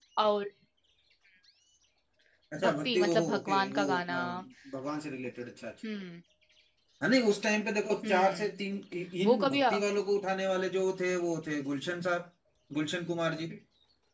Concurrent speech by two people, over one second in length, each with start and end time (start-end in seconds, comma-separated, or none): 2.6-4.2